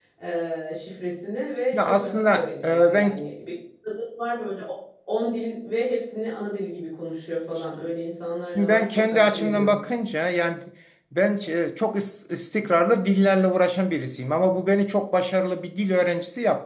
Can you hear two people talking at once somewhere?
Yes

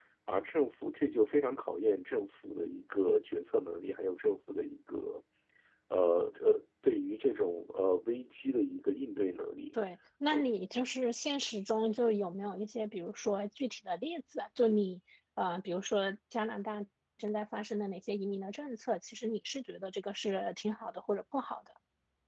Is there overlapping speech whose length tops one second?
No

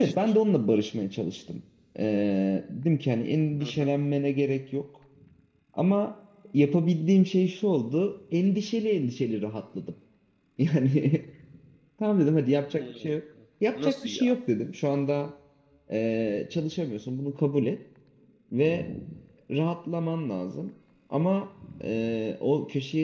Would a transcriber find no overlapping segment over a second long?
Yes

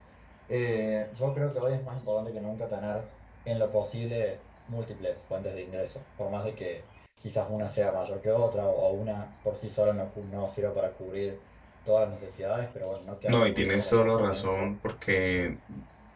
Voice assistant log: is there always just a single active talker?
No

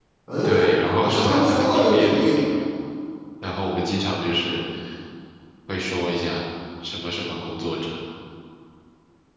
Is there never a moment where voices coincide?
No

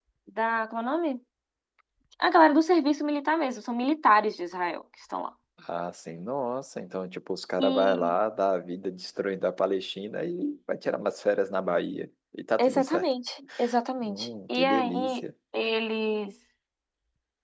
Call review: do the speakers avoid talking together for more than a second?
No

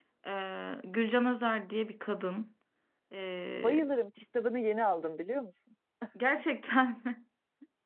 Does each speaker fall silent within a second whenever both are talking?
Yes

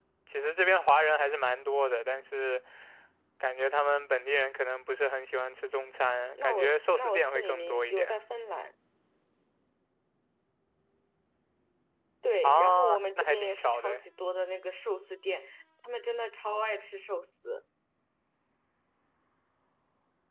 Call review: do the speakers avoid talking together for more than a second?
No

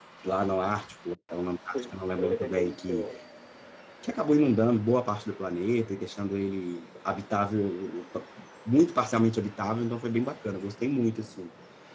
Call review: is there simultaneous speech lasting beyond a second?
Yes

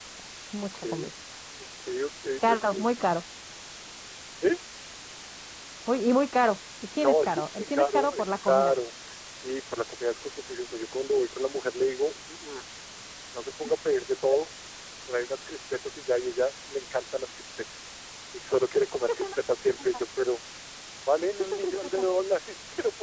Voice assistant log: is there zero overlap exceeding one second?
No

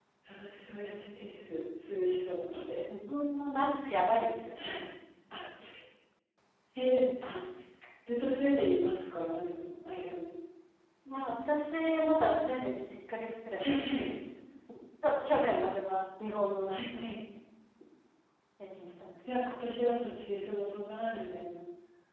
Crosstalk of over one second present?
No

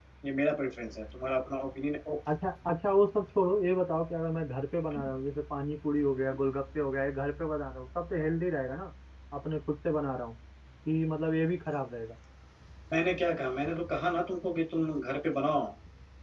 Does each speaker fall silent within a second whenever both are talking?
Yes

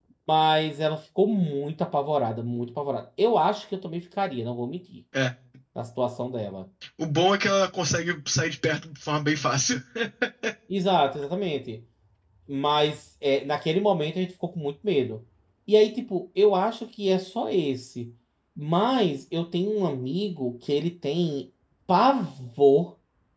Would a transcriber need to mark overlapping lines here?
No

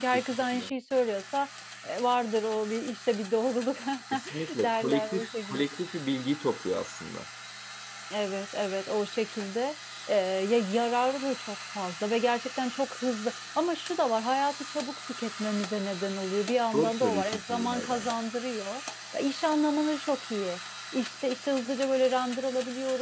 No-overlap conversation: No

